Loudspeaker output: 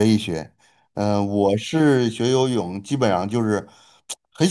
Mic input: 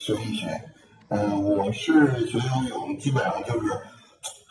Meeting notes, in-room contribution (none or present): none